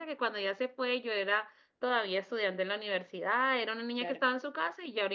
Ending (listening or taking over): listening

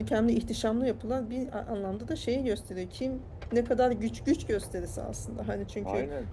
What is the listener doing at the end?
listening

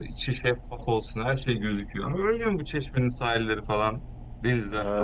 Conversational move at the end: taking over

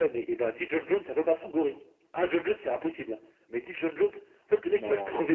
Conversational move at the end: listening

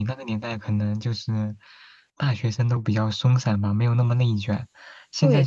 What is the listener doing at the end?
taking over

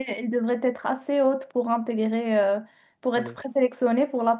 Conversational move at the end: listening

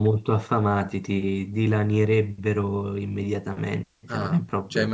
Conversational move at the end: taking over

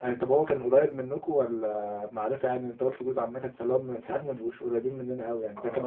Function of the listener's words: taking over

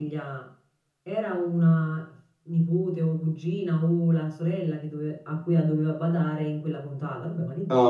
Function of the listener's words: taking over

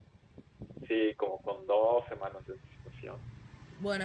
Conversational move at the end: taking over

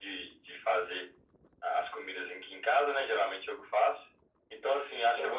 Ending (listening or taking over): listening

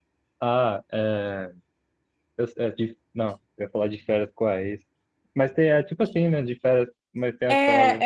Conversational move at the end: taking over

